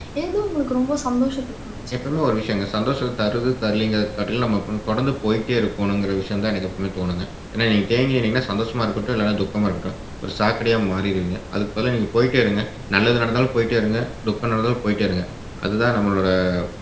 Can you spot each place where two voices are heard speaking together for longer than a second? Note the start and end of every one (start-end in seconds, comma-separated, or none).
none